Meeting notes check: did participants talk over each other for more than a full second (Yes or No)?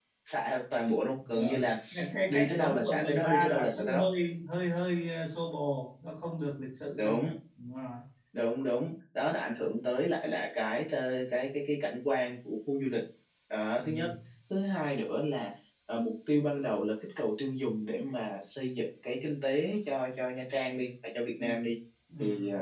Yes